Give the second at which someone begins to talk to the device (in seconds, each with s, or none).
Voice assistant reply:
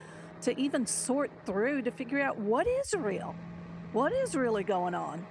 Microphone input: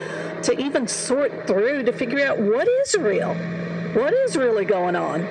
none